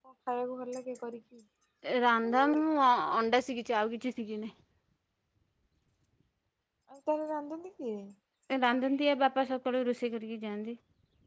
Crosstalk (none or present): none